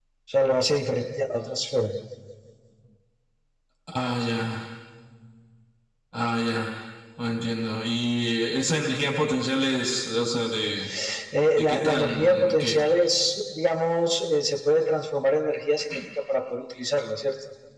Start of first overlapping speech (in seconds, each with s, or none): 11.6 s